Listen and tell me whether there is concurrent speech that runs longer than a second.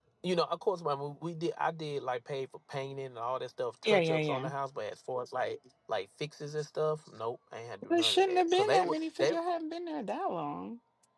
Yes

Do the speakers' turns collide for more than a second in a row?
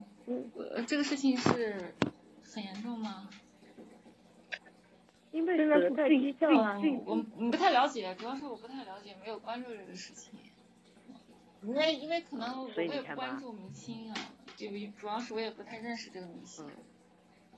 Yes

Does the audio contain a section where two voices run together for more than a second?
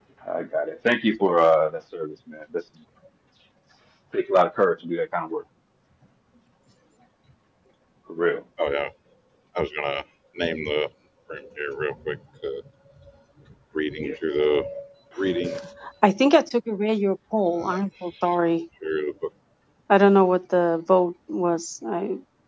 No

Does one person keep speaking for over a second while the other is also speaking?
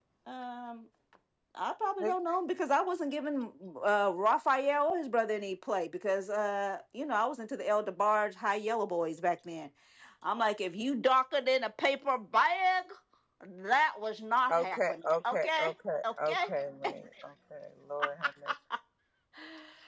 Yes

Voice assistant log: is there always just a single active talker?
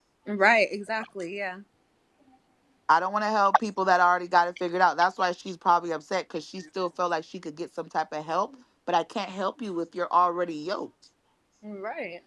Yes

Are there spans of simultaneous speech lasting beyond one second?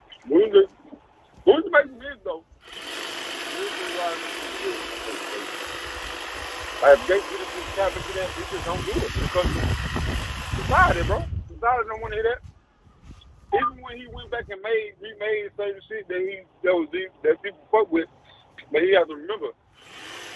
No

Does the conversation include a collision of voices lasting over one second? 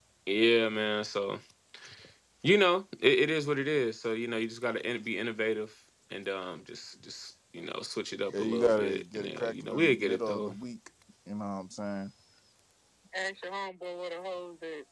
Yes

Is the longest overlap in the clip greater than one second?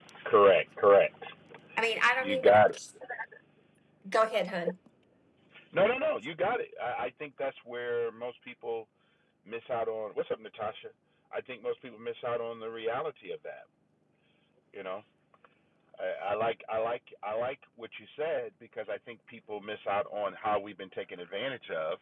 No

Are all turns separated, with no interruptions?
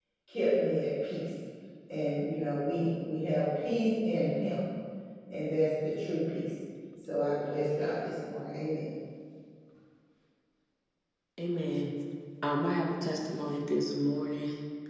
Yes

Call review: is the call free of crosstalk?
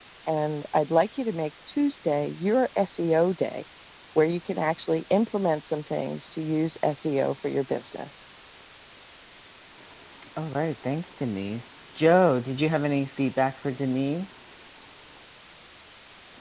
Yes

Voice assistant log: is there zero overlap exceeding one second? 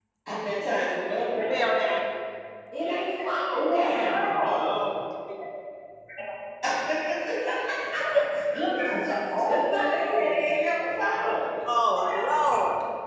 No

